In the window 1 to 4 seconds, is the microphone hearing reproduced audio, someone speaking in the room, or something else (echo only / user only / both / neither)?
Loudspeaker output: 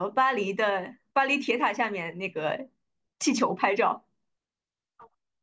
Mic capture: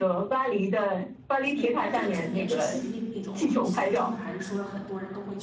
both